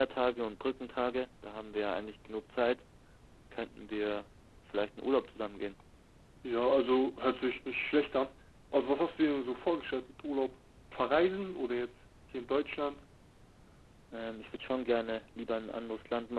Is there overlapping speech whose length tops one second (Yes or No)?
No